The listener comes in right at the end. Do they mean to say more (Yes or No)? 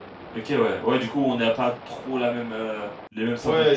Yes